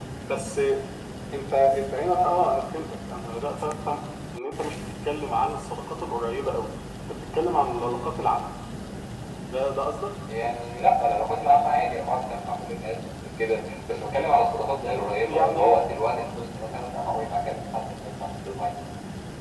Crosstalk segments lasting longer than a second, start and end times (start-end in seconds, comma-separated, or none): none